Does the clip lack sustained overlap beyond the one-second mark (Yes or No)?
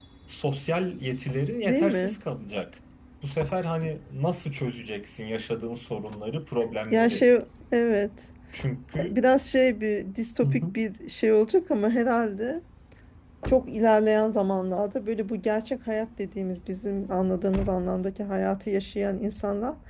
Yes